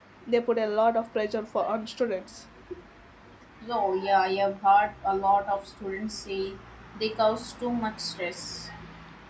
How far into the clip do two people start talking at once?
none

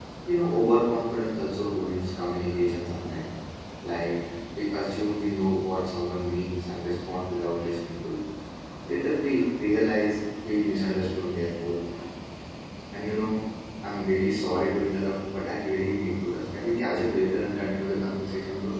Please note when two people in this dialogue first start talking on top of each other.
none

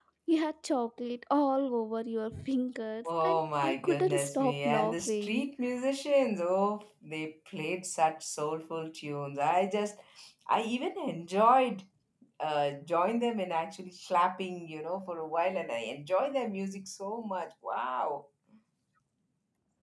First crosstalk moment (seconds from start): 3.0 s

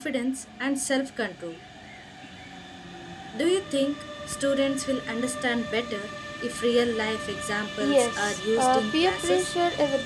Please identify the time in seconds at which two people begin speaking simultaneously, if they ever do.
7.8 s

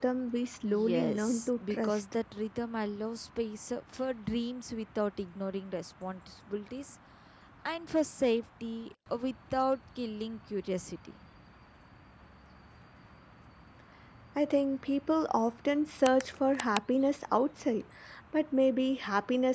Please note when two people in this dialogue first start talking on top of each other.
0.6 s

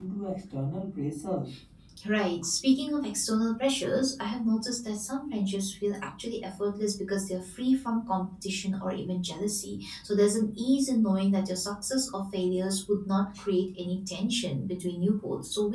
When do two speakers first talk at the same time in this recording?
none

